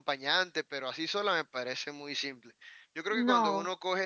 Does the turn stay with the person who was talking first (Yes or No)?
Yes